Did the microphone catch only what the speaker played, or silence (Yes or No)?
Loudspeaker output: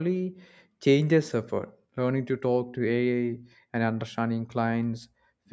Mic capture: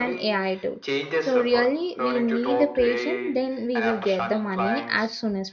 No